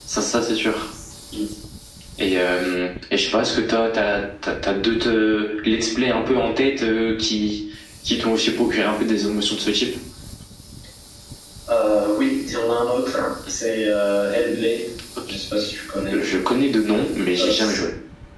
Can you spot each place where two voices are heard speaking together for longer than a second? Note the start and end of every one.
none

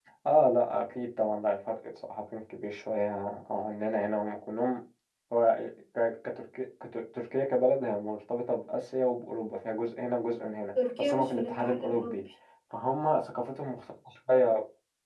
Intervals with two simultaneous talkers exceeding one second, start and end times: 11.0-12.2

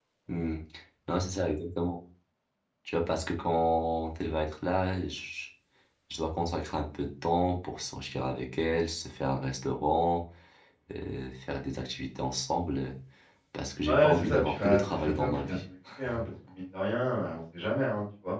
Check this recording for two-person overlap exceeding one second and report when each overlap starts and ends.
13.8-15.6

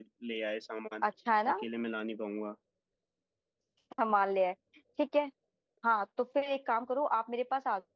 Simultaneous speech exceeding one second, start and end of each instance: none

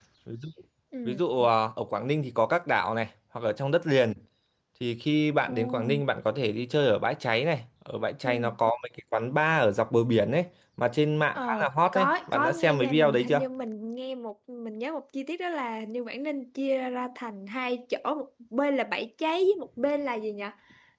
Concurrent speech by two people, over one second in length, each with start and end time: 11.3-13.4

